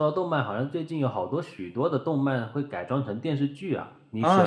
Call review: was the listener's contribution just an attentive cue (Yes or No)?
No